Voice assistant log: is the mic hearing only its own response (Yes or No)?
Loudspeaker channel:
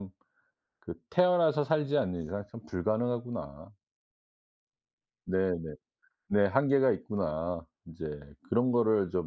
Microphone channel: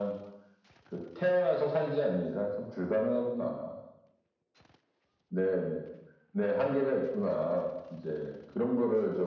Yes